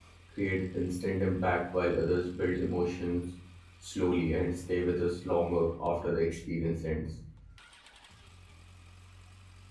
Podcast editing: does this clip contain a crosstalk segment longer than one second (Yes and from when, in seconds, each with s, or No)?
No